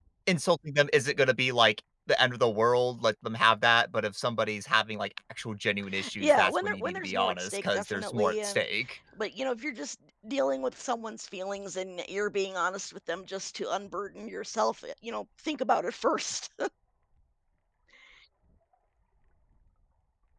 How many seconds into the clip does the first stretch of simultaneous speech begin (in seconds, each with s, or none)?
6.2 s